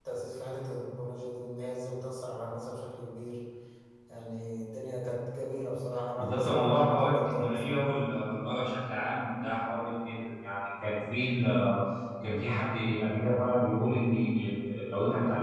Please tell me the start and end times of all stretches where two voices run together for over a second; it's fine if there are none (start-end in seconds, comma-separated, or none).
6.2-7.8